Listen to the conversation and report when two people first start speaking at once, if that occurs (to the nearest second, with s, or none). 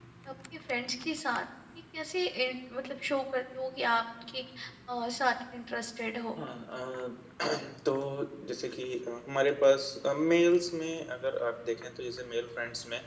none